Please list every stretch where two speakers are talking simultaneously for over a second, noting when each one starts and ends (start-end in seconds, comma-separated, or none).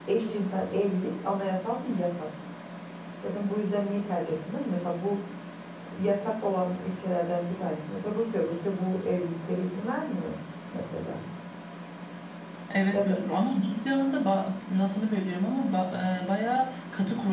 none